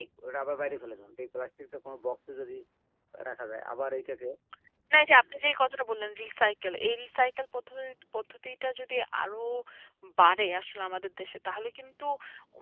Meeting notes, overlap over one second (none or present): none